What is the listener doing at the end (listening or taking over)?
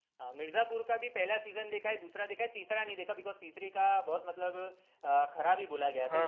taking over